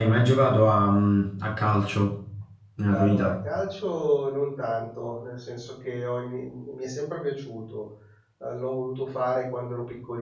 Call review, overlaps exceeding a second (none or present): none